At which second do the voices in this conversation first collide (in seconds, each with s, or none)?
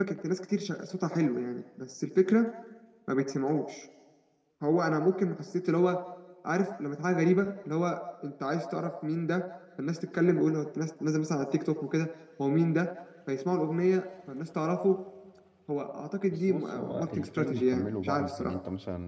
16.3 s